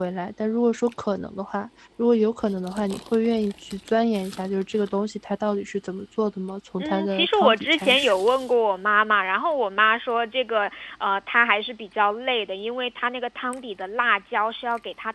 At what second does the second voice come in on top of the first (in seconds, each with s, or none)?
6.8 s